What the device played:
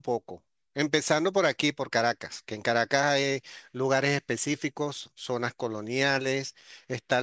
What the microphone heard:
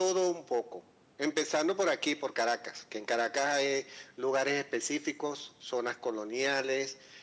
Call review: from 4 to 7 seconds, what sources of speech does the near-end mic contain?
echo only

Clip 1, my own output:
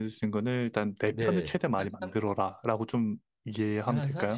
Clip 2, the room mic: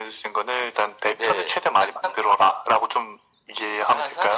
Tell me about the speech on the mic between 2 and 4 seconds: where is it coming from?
echo only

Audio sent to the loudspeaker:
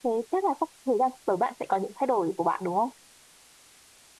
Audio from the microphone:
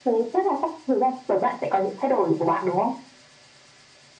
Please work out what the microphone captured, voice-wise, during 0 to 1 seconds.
echo only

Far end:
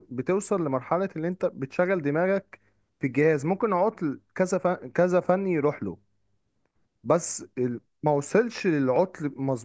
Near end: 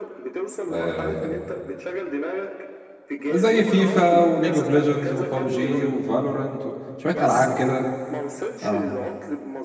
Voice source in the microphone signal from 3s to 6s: both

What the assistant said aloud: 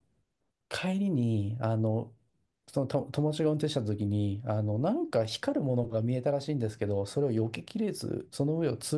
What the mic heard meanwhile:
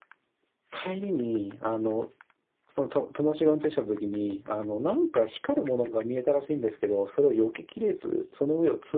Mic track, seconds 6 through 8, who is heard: echo only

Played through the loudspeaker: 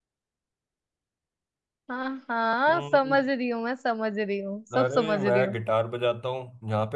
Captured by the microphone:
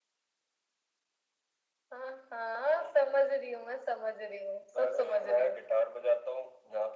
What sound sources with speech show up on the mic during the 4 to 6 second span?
echo only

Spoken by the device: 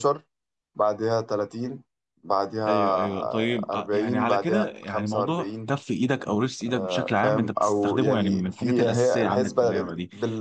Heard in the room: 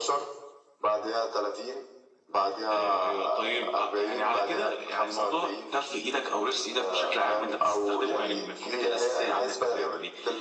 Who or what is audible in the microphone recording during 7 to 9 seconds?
echo only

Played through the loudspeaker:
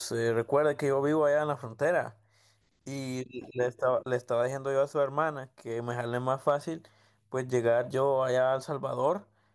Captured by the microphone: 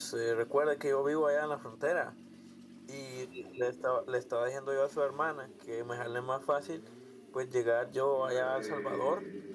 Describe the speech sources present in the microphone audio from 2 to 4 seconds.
echo only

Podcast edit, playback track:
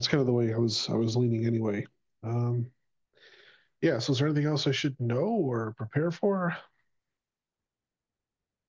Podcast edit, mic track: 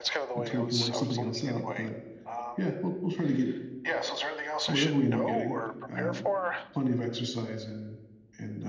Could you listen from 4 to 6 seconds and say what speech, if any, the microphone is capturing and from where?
both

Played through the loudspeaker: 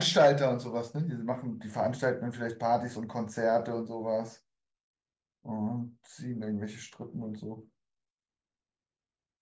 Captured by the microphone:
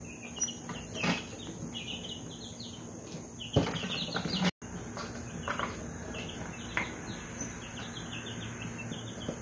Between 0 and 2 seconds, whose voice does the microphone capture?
neither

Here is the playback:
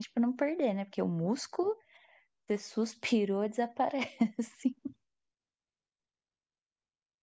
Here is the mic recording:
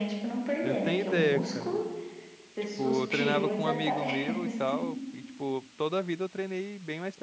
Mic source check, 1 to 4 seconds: both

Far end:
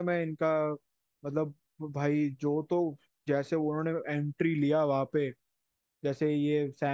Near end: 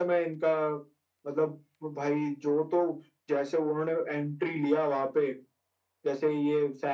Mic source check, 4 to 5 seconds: echo only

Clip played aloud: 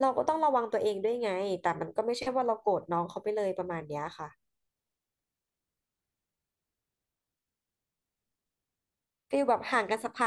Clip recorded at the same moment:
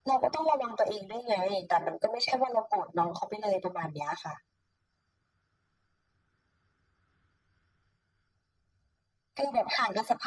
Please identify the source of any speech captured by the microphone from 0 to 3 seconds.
echo only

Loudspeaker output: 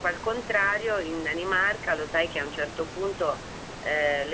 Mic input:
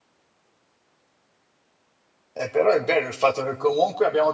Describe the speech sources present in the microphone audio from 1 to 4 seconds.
user only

